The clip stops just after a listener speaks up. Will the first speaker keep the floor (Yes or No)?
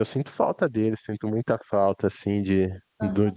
Yes